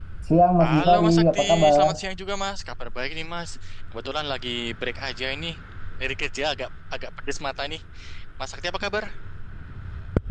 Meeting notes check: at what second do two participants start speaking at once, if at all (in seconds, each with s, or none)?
0.6 s